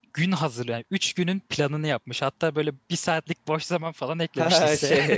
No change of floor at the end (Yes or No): No